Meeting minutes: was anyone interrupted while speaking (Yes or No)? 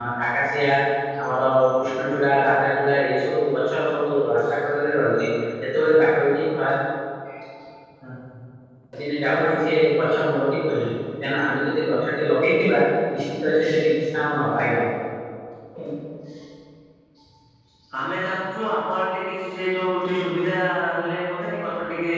No